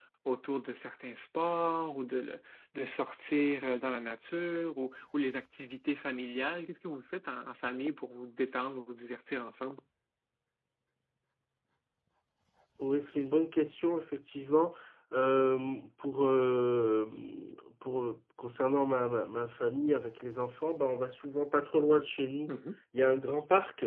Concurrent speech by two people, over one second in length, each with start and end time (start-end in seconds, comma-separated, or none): none